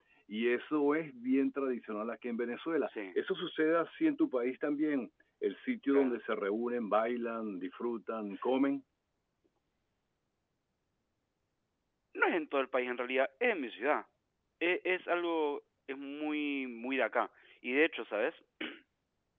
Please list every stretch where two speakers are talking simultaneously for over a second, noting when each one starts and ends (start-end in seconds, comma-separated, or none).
none